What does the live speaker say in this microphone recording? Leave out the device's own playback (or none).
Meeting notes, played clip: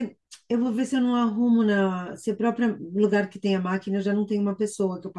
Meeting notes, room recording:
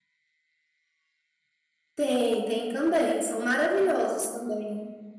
Tem, tem também. São maravilhosos também.